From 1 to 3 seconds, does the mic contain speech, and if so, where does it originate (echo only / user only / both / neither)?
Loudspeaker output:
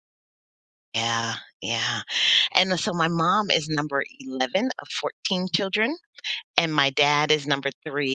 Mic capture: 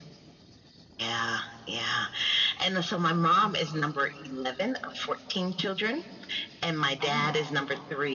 echo only